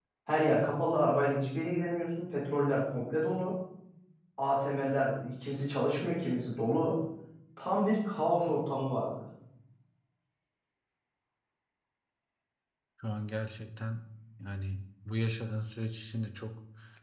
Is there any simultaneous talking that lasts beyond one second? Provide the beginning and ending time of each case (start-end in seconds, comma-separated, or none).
none